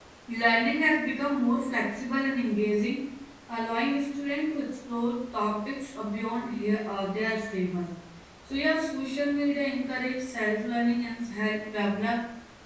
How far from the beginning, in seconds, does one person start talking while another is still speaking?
none

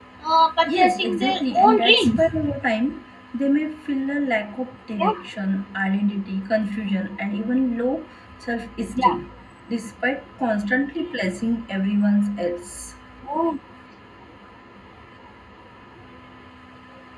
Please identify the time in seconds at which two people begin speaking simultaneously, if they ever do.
1 s

